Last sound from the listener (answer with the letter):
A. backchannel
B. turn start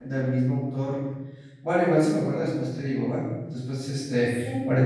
A